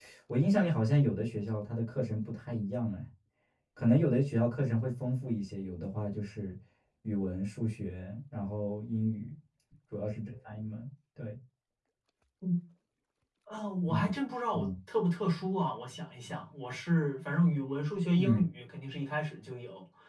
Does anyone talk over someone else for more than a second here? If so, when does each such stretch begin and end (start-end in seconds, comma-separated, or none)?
none